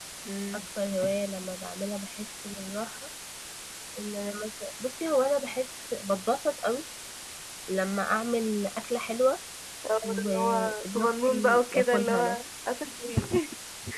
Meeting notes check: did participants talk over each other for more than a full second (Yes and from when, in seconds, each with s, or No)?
Yes, from 10.0 s